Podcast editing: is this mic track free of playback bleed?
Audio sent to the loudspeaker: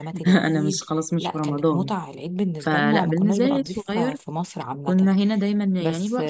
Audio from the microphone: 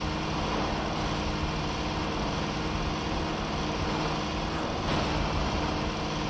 Yes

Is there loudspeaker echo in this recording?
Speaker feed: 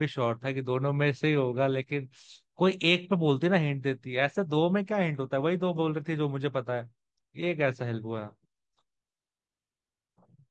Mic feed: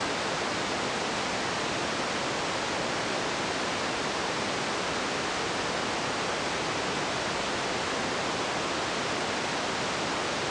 No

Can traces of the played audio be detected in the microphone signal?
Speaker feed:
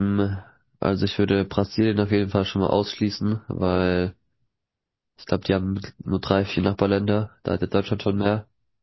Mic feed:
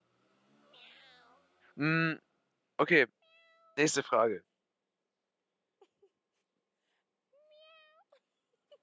No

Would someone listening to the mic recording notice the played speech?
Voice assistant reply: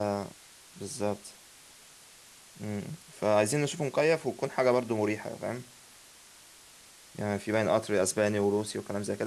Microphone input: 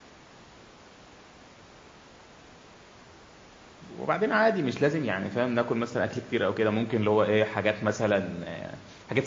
No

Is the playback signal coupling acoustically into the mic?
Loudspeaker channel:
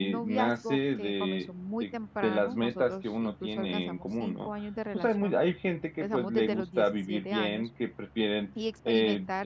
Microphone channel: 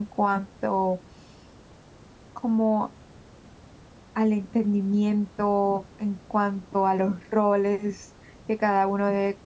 No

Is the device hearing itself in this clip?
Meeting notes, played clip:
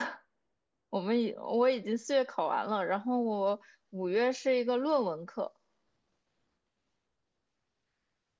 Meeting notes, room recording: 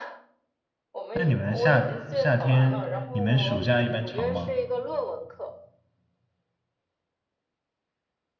Yes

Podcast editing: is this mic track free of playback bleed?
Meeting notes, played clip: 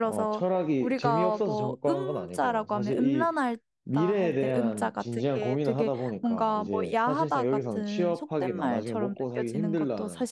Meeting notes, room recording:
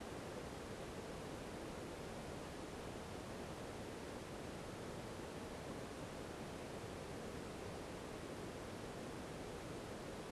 Yes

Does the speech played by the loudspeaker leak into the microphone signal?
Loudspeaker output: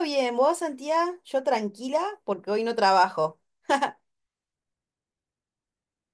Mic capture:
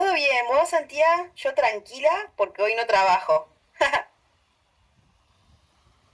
Yes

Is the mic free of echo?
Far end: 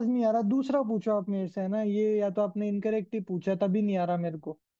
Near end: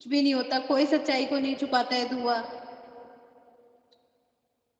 Yes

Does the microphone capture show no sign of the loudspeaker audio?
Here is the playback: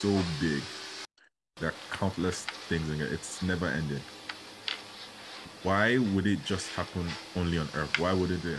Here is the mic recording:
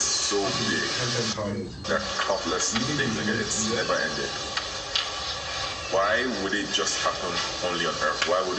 No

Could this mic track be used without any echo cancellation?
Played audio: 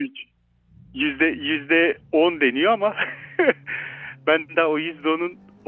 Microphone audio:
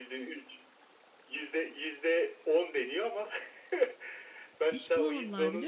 No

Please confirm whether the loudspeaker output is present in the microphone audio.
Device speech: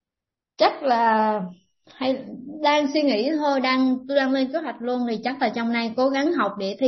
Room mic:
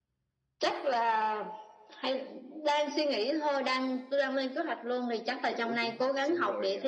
Yes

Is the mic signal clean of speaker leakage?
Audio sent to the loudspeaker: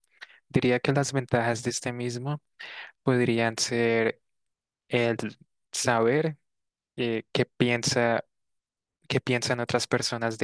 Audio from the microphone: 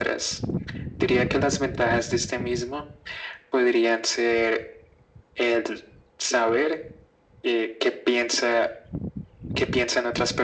No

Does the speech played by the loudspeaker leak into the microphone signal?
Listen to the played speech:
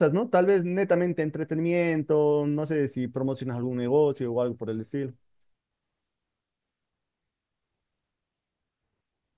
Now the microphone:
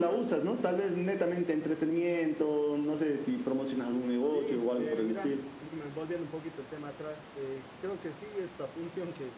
Yes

